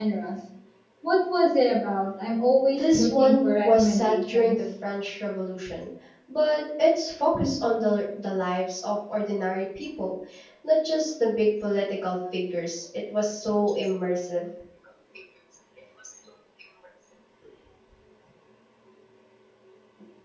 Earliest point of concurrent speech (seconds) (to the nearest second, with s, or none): 3 s